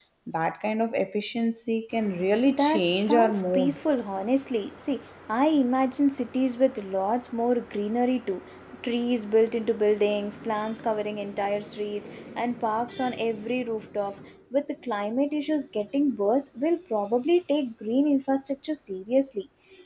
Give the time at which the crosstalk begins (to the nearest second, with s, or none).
2 s